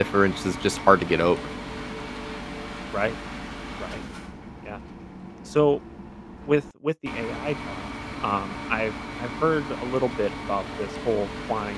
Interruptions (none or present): none